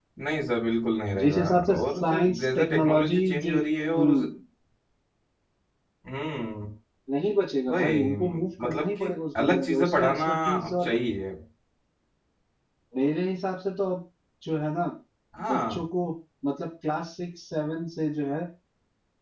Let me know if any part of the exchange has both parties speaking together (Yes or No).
Yes